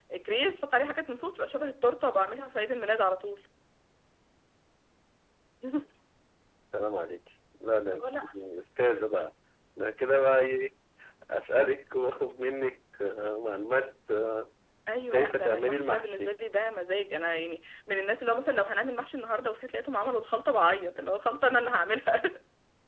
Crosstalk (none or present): present